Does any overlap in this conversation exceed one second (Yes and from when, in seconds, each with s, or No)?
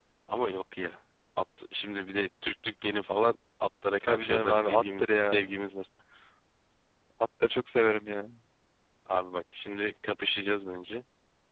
Yes, from 4.0 s